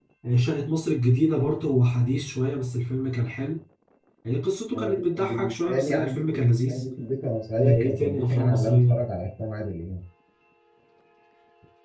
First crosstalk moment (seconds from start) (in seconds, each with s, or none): 4.8 s